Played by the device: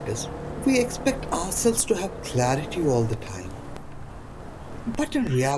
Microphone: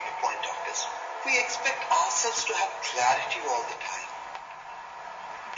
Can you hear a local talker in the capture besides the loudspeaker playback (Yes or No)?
No